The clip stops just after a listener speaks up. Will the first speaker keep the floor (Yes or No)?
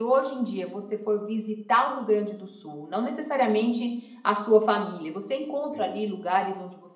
Yes